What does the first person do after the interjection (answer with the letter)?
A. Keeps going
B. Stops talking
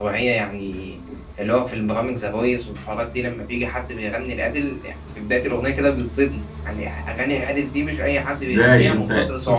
B